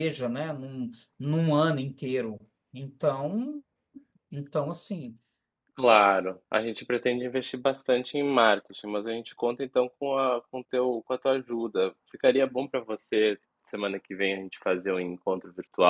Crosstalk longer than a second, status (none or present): none